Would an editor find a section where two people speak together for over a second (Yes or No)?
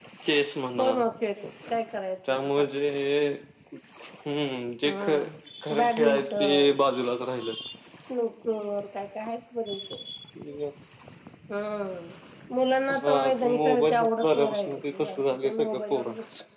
Yes